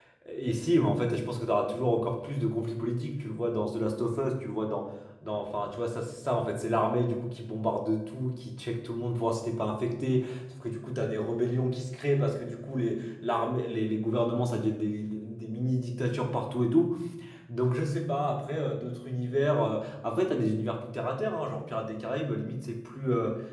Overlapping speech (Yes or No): No